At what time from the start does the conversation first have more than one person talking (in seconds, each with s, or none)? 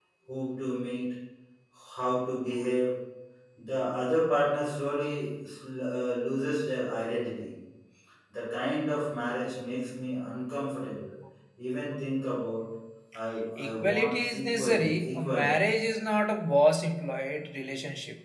13.6 s